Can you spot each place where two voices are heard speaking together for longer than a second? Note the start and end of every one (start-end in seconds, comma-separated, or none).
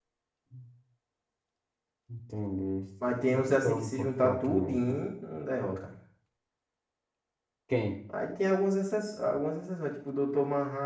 3.1-5.0